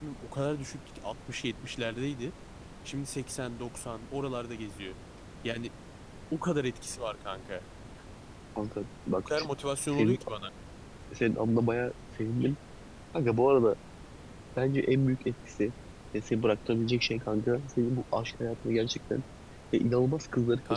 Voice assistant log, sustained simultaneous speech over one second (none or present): none